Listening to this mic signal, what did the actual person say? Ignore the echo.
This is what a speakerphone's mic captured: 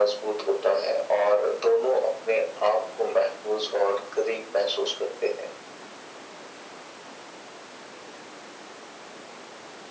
none

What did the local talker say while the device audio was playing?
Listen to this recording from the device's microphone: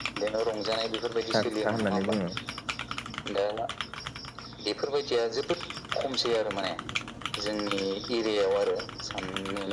हाथा खुथा होननानै बुङो।

